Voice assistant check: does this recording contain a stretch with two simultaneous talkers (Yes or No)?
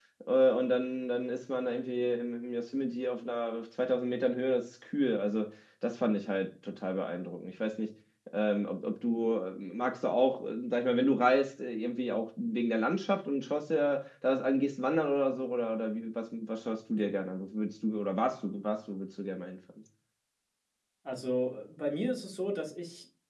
No